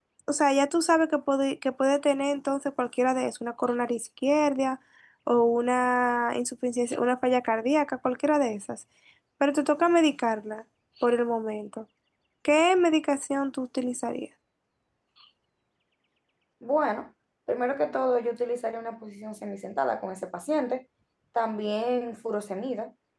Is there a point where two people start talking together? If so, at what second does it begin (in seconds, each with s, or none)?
none